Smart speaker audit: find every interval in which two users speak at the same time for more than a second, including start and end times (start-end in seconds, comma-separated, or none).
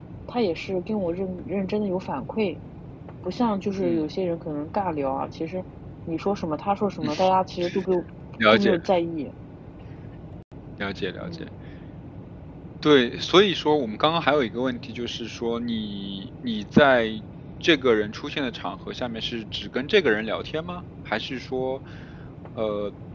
none